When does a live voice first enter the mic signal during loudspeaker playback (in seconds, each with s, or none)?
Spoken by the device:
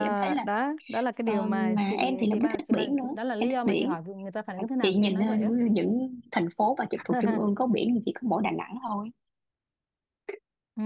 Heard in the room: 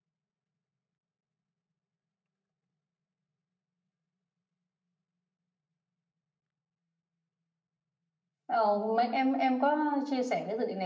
8.4 s